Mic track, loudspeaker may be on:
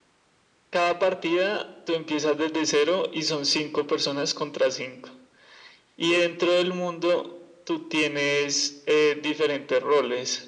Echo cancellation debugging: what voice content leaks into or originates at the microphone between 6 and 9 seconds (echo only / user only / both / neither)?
echo only